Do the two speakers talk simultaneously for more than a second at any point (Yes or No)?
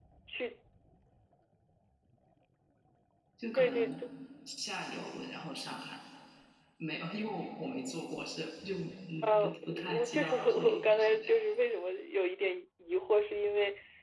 Yes